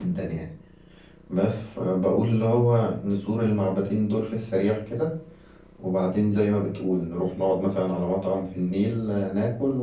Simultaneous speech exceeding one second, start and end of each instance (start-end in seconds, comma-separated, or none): none